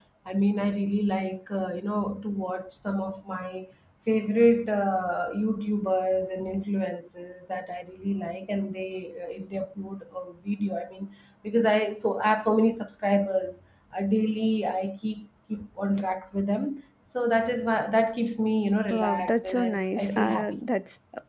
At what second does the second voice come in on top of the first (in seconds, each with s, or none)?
18.9 s